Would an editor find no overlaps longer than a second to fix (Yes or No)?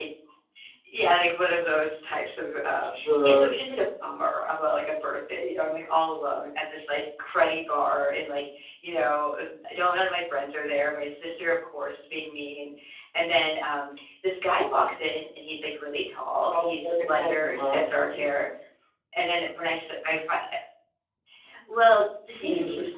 No